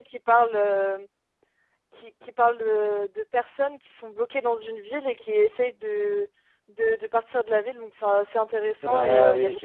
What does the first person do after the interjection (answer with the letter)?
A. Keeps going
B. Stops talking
B